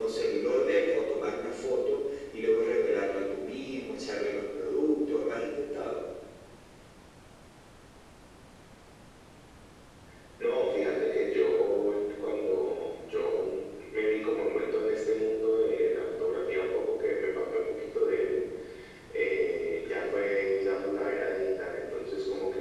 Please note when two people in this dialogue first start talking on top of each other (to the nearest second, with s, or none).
none